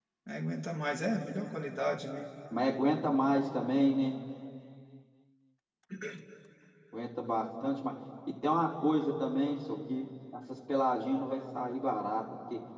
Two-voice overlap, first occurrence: none

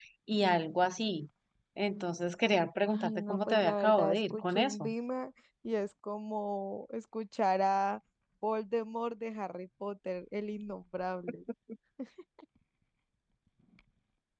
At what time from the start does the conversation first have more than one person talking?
2.9 s

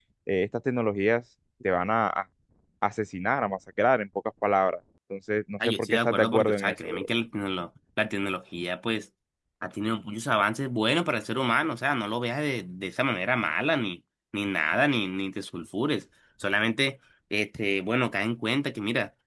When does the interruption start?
5.6 s

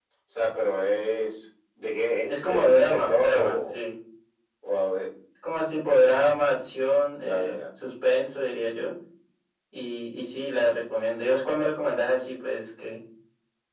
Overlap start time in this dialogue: 2.3 s

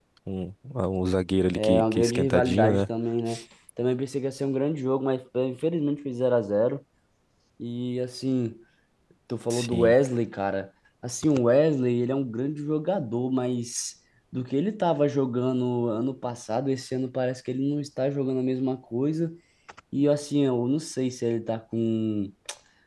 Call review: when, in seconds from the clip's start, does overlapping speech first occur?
1.5 s

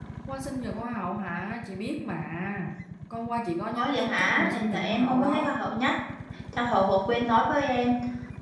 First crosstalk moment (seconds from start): 3.8 s

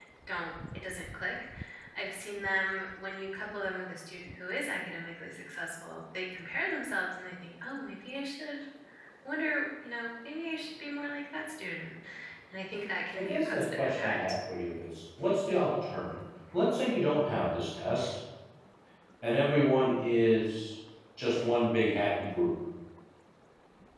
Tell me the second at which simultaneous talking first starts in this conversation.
13.2 s

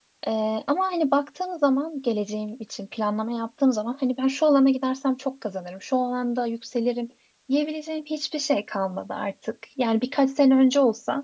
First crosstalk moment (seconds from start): none

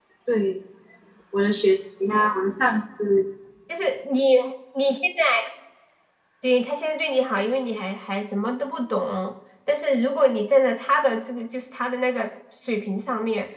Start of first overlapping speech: none

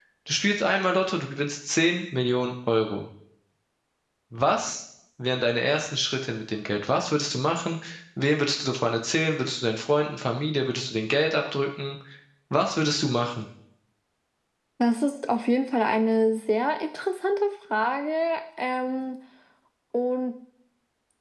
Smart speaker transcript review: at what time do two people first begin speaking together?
none

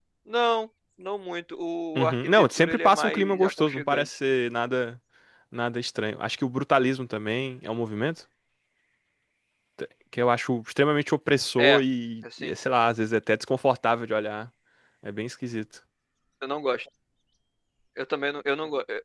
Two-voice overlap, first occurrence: 1.9 s

